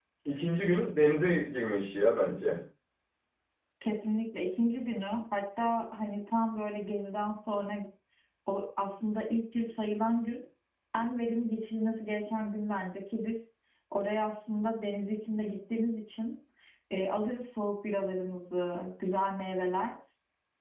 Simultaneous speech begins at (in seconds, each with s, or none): none